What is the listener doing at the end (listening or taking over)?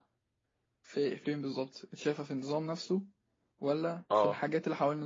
listening